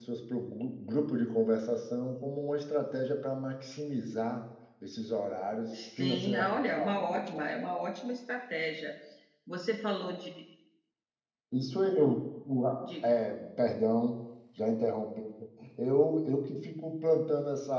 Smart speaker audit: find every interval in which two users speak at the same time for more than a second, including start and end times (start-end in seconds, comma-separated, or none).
6.0-7.4